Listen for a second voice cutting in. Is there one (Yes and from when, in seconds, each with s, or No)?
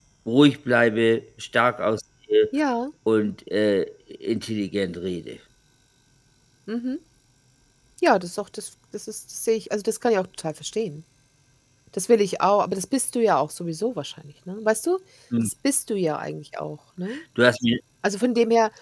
No